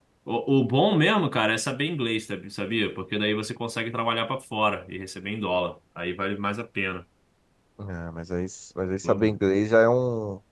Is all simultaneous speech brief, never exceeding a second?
Yes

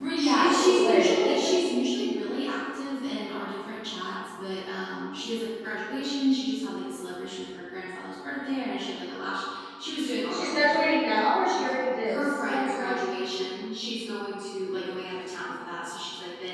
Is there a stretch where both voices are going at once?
Yes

